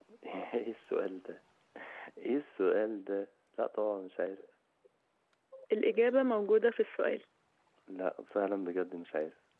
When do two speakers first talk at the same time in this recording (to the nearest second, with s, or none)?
none